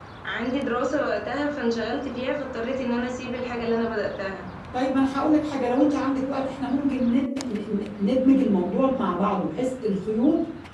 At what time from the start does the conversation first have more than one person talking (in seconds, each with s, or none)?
none